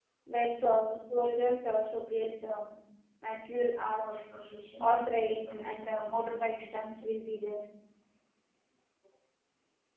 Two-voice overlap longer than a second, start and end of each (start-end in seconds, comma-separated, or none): 4.8-6.7